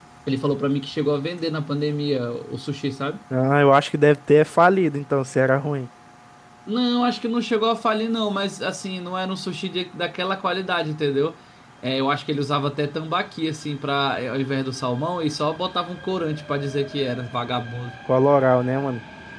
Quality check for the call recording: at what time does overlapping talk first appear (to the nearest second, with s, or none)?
none